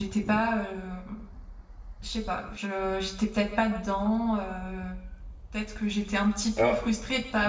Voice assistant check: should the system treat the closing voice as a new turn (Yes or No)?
No